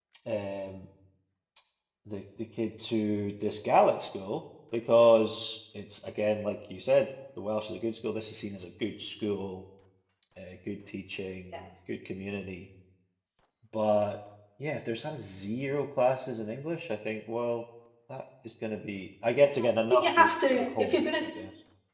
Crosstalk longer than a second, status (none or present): present